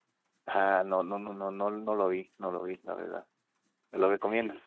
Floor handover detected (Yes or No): Yes